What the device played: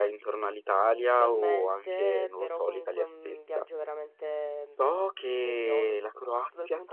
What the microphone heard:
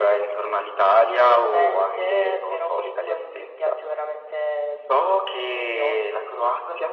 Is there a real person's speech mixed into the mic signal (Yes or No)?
No